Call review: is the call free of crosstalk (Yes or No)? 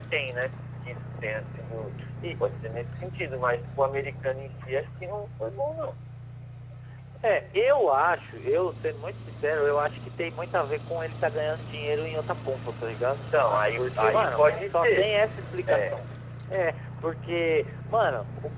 No